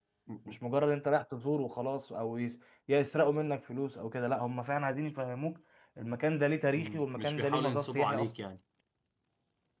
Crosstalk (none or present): present